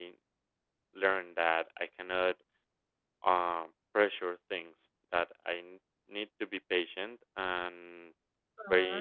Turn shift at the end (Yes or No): No